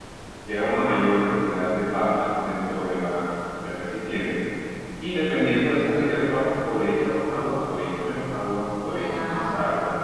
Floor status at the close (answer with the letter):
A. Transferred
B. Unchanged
B